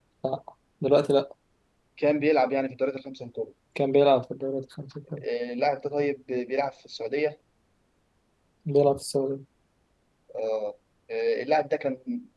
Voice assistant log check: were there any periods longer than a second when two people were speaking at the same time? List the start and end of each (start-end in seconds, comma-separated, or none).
none